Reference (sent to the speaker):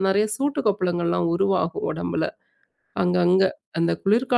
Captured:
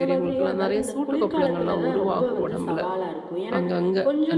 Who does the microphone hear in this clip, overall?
both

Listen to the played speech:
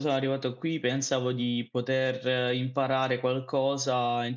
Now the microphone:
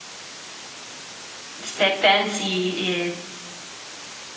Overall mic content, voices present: user only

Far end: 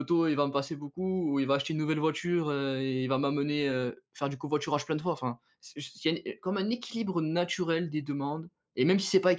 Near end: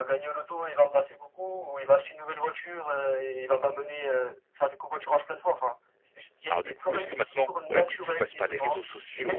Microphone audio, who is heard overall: both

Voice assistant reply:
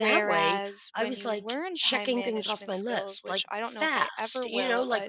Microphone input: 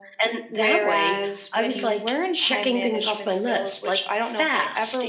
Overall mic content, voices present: echo only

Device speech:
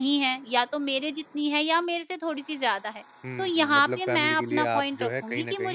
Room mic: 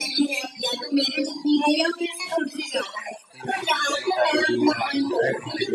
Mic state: echo only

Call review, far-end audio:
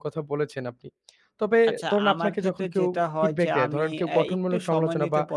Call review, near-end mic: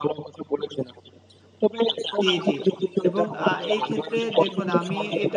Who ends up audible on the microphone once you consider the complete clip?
both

